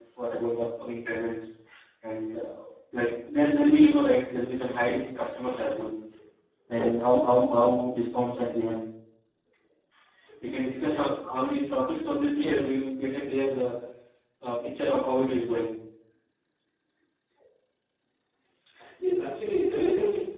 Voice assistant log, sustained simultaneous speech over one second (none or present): none